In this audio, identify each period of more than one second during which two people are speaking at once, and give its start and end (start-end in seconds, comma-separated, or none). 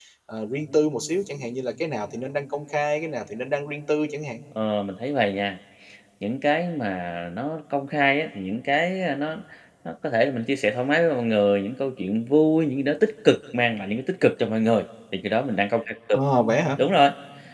none